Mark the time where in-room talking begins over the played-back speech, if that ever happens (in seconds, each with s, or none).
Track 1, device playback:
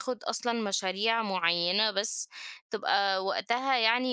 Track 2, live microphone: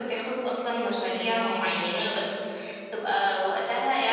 none